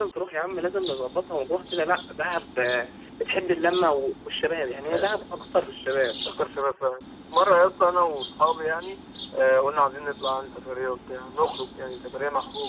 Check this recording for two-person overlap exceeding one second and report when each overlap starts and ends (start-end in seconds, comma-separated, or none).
none